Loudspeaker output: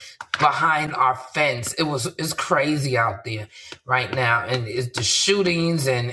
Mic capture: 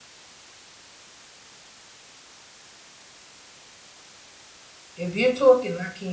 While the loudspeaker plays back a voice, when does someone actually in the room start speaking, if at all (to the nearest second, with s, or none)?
5 s